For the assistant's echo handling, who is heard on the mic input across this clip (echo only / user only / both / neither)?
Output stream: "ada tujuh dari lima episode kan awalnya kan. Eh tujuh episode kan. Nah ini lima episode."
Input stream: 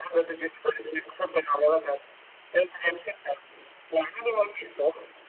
echo only